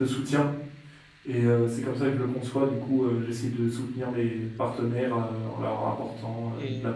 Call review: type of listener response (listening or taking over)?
taking over